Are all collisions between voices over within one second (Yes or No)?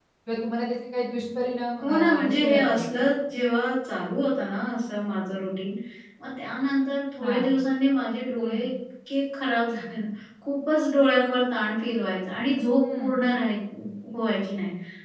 No